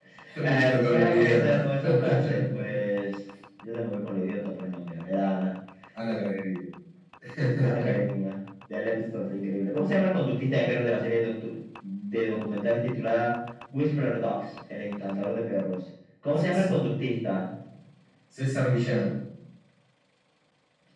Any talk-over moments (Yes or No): Yes